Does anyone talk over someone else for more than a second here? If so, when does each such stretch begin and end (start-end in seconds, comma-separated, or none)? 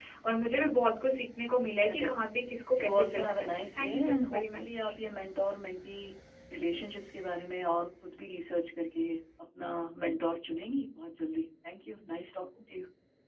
2.7-4.9